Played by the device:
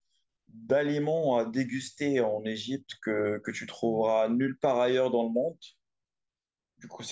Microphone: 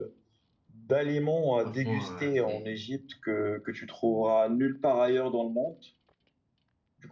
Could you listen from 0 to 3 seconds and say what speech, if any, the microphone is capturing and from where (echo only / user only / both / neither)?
both